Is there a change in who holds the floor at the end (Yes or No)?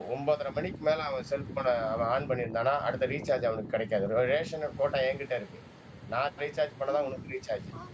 Yes